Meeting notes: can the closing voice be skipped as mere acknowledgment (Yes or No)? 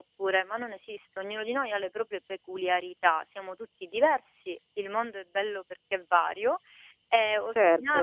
Yes